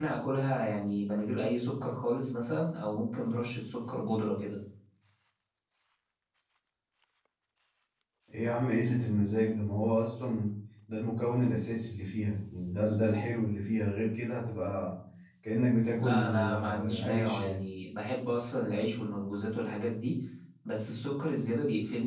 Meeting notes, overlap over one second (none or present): present